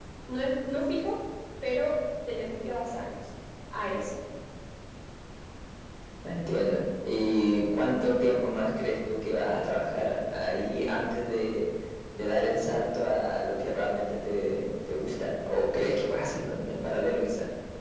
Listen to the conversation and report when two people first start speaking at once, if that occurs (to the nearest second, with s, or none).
none